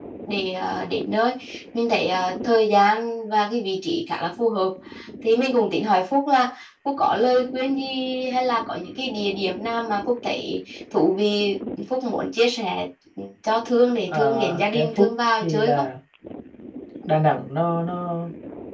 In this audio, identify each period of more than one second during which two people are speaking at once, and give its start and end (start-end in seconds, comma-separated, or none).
14.1-15.9